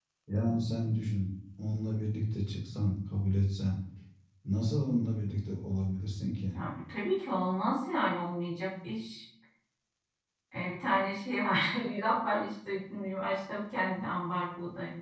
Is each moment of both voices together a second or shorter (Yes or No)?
Yes